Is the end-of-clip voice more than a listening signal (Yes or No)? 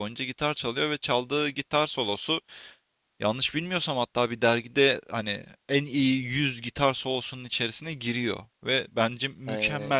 No